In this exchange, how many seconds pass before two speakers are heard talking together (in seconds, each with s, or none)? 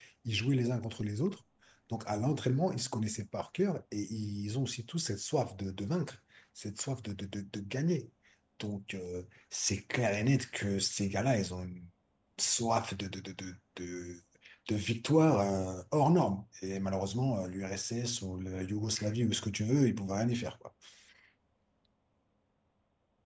none